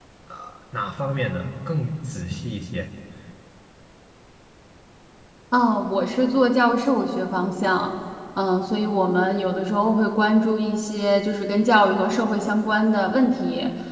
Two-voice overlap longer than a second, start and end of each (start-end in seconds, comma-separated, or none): none